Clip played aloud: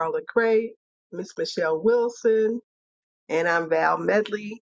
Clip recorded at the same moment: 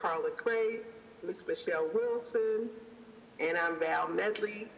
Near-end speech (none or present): none